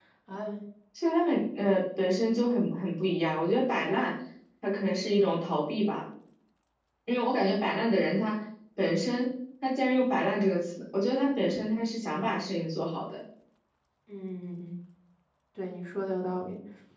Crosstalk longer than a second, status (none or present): none